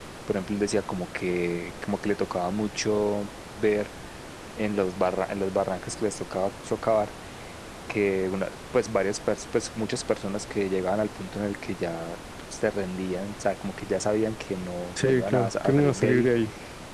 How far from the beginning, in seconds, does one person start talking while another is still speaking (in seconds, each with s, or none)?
15.0 s